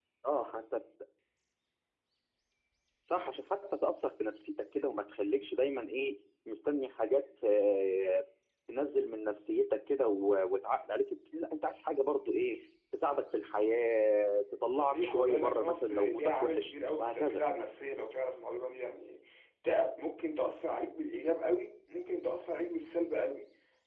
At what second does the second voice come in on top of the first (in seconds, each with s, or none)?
14.7 s